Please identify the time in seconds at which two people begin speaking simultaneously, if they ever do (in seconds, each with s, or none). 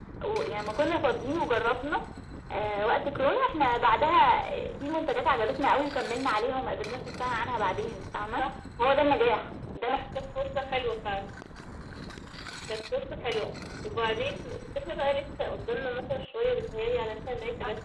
none